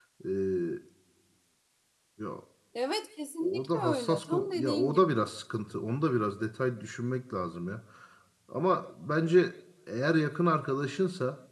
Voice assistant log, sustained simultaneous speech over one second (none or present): present